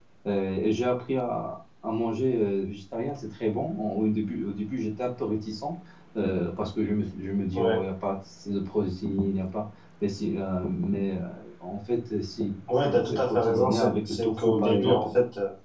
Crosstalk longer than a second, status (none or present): present